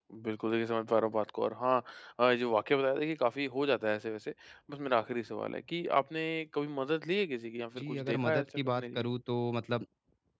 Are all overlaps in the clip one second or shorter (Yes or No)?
No